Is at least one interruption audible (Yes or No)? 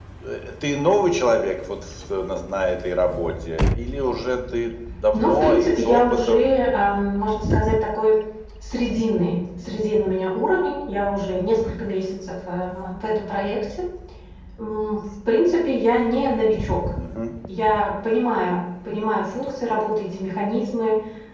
Yes